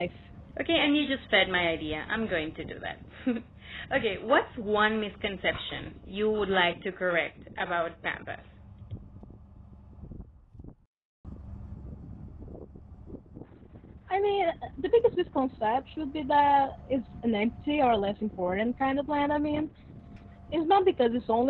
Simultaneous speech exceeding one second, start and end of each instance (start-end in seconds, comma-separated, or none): none